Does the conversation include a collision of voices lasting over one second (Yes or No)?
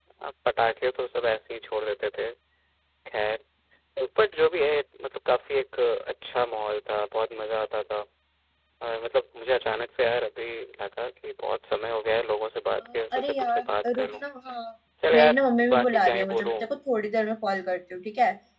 Yes